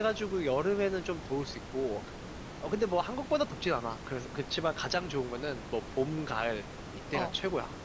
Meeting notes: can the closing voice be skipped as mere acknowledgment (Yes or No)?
No